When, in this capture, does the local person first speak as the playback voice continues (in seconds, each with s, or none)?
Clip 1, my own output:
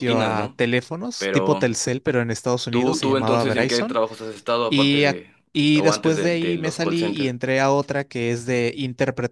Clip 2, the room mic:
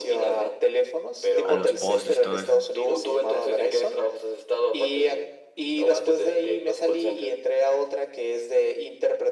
1.4 s